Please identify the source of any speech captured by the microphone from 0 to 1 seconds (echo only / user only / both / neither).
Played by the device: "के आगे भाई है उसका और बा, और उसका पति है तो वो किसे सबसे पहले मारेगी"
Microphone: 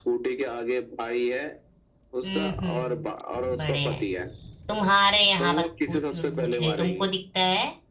echo only